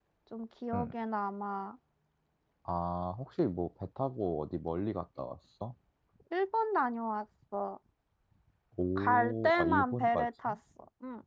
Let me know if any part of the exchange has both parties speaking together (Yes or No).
Yes